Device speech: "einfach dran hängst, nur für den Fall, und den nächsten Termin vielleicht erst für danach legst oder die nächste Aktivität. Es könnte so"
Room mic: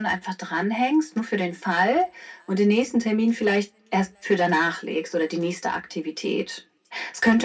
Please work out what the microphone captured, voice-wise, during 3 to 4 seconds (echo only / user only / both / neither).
echo only